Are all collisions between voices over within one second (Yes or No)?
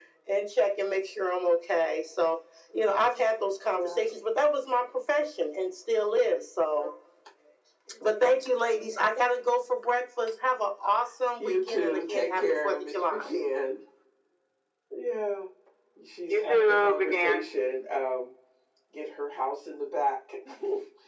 No